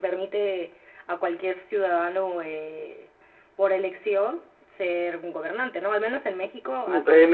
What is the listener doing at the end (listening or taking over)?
taking over